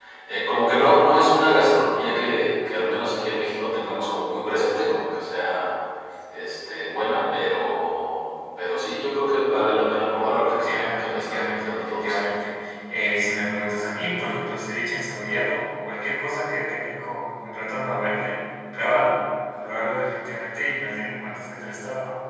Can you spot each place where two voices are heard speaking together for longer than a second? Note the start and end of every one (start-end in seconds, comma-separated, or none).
10.6-12.2